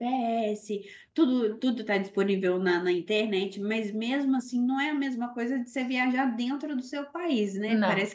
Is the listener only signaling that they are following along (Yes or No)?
Yes